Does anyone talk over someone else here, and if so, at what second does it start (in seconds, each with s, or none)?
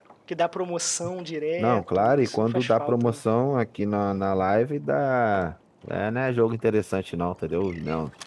1.6 s